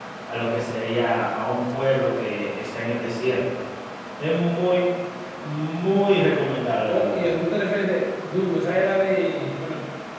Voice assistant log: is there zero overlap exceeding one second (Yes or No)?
Yes